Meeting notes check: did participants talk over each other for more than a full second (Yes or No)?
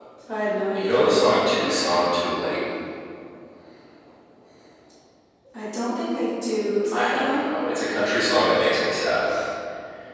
No